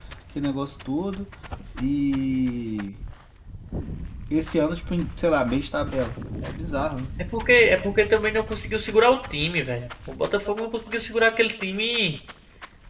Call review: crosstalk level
none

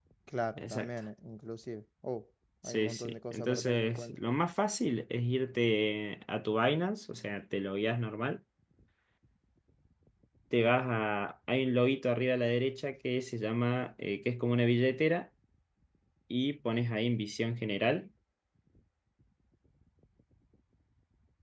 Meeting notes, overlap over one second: present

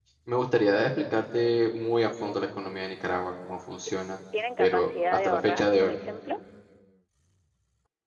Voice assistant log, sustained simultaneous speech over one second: present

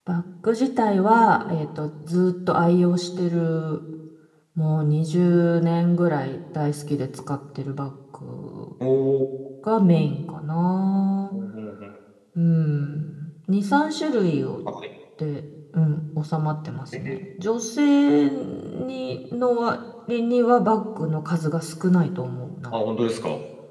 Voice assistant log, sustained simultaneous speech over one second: none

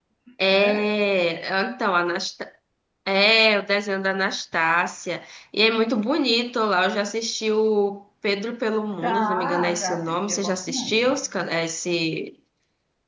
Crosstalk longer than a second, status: present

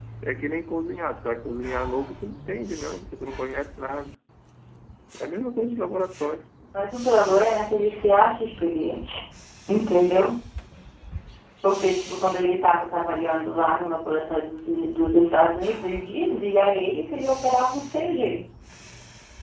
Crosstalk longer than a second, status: none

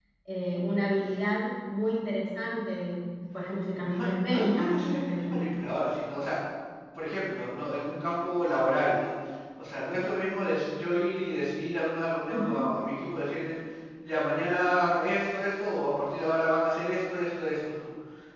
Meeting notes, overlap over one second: present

